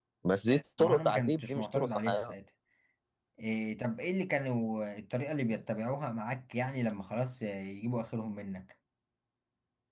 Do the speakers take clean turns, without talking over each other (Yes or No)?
No